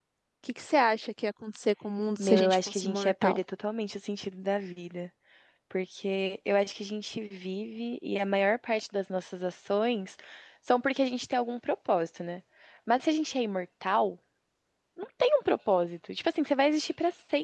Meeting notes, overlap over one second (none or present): present